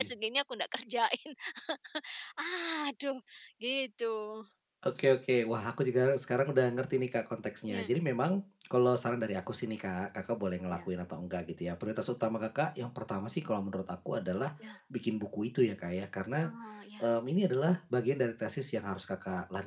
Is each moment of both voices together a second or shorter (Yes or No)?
Yes